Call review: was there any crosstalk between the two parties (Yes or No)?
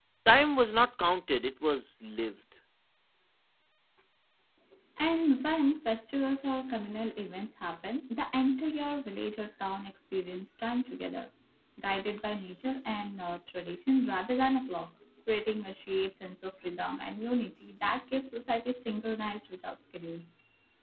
No